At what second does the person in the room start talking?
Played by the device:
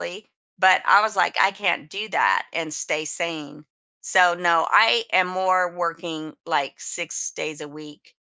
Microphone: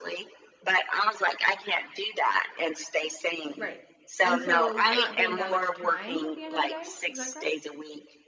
3.6 s

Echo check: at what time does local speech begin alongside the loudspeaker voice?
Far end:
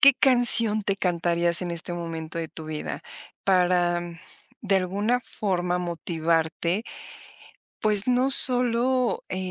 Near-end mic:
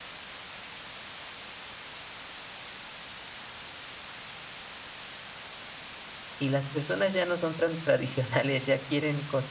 6.4 s

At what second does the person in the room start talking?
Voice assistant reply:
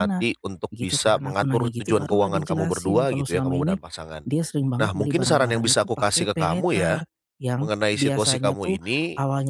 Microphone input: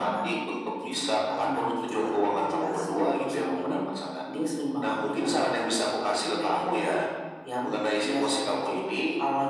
none

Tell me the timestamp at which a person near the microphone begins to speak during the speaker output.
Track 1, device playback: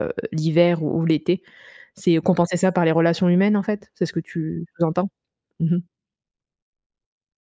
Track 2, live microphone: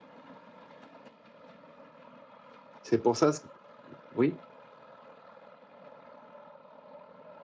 2.8 s

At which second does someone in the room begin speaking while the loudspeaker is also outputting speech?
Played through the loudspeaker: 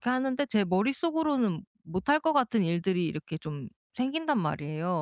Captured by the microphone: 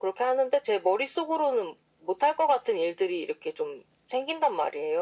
none

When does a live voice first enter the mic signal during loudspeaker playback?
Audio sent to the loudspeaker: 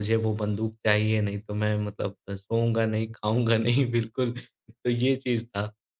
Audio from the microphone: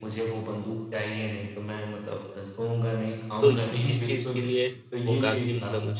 3.4 s

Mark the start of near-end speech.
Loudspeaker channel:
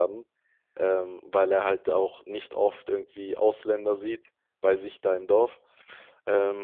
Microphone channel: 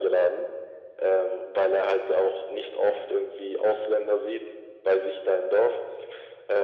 none

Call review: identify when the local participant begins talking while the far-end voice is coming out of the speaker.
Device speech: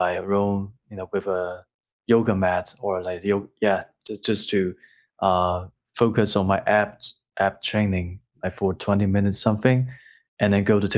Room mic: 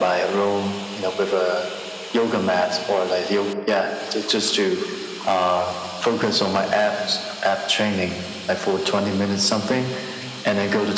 none

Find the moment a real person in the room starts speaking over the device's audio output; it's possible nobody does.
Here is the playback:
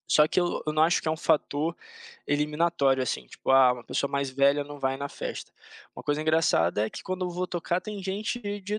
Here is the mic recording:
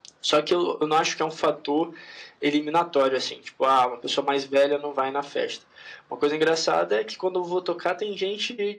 none

